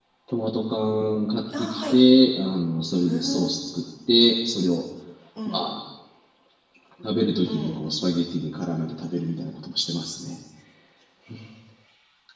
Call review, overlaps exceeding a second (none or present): none